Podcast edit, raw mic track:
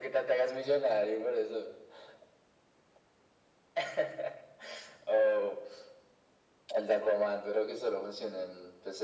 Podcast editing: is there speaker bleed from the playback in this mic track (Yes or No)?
Yes